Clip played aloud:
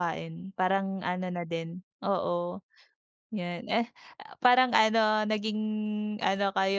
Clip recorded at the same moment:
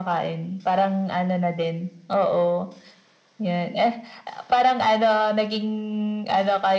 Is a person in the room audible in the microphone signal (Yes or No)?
No